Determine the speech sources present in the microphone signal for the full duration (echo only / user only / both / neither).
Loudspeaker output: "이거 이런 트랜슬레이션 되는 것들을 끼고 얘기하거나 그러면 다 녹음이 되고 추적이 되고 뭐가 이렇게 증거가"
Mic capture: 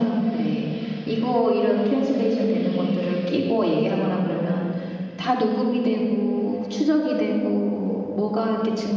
echo only